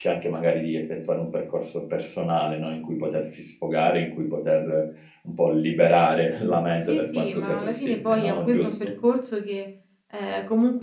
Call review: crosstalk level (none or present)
present